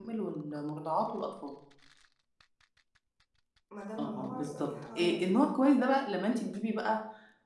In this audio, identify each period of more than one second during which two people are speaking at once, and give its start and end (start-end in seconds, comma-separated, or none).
4.0-5.4